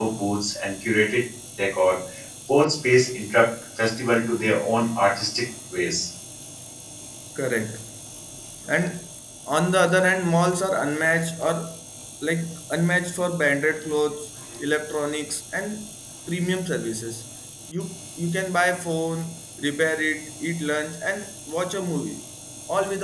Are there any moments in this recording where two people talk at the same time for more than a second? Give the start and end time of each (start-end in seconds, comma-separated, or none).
none